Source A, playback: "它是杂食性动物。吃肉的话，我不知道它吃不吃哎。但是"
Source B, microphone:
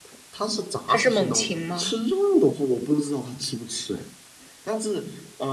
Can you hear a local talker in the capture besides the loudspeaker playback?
Yes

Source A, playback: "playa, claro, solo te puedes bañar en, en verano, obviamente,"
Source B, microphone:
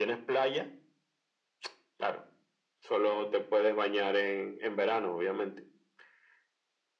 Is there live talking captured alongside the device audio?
No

